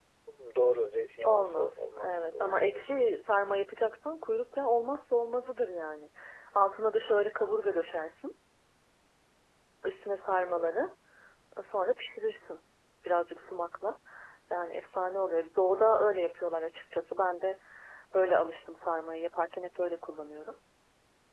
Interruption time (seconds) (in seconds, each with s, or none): 1.2 s